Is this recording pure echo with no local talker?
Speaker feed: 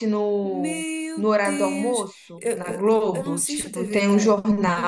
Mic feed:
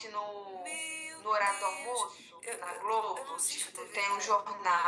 Yes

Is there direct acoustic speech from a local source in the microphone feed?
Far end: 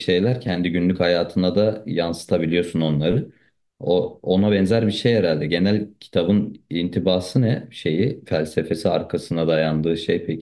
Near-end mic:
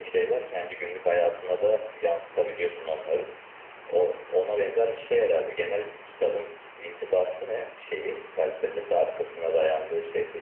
No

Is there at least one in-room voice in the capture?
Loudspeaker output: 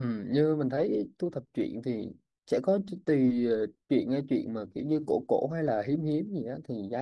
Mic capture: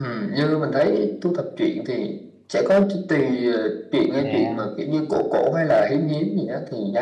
Yes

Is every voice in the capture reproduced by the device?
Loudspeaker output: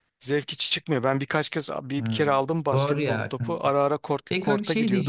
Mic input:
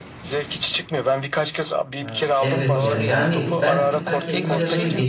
No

